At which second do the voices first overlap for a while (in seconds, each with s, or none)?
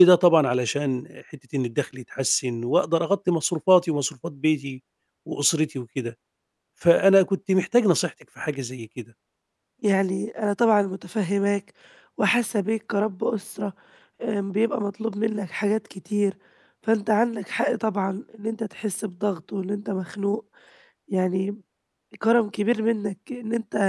none